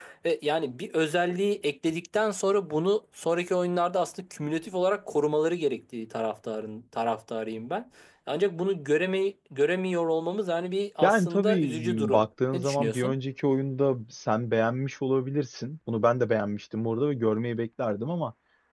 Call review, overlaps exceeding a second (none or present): present